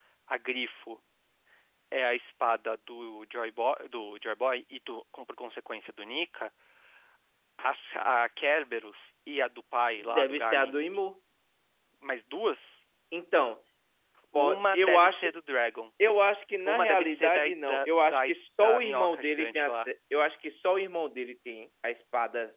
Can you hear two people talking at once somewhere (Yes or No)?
Yes